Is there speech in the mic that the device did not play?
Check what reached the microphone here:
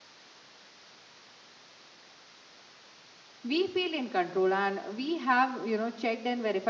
Yes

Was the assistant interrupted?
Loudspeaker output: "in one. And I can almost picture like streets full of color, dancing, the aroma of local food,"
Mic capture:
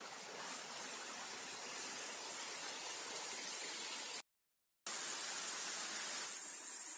No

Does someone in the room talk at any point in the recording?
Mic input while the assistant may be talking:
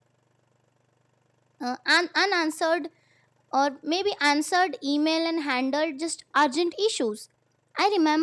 Yes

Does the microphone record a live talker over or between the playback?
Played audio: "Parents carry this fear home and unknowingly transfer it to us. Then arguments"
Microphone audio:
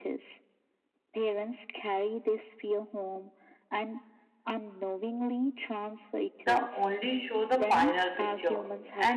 Yes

